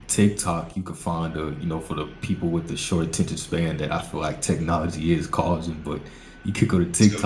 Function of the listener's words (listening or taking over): listening